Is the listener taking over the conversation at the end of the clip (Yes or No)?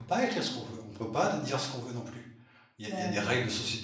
No